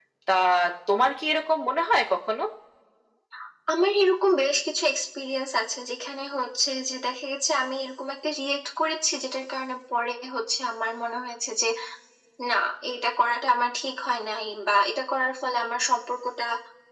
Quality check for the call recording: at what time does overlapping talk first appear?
none

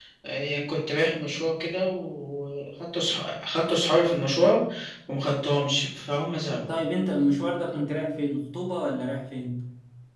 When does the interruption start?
none

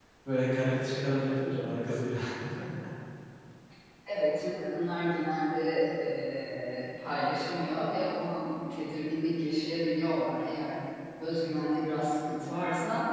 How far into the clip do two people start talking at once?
none

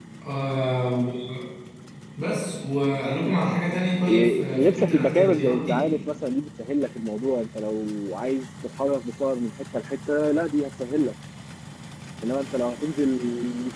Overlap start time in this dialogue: 4 s

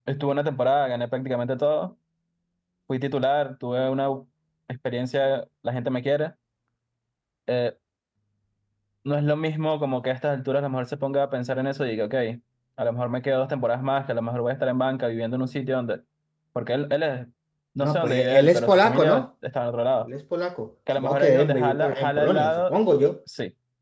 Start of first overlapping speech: 18 s

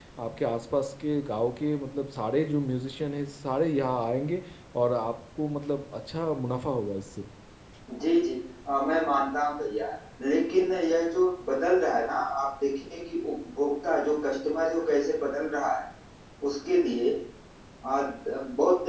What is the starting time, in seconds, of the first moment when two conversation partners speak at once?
none

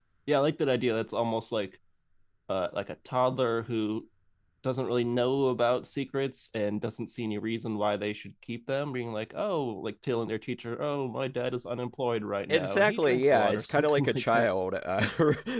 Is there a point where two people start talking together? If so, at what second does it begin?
12 s

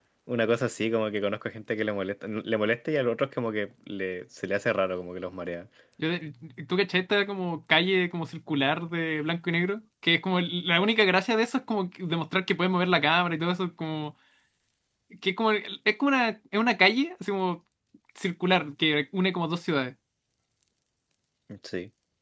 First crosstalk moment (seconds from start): none

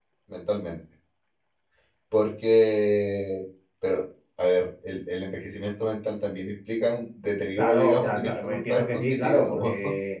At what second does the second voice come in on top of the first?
8 s

